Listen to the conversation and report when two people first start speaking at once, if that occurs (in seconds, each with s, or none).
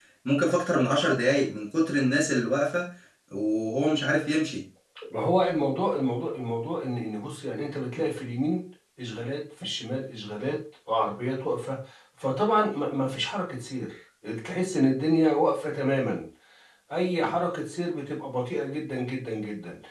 none